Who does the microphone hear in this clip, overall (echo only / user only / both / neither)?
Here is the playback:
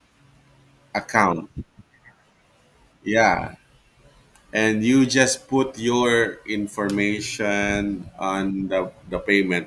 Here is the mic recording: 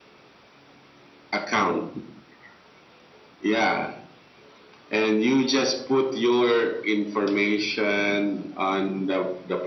echo only